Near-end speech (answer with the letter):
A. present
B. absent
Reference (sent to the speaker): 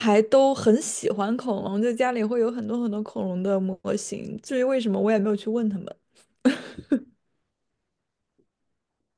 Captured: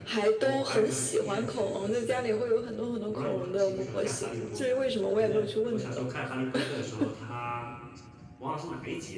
A